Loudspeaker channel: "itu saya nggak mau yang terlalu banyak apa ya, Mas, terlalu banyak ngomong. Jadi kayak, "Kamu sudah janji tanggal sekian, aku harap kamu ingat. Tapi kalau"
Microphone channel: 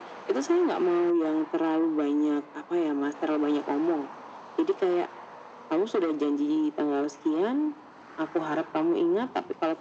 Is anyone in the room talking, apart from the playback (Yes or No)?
No